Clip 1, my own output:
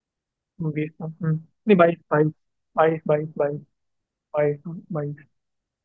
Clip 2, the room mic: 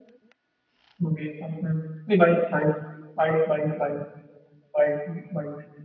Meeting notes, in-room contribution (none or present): none